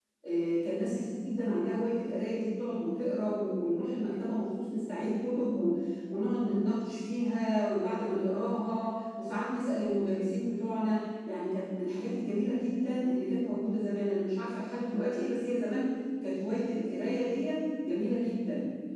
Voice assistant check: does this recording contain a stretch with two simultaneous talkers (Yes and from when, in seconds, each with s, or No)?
No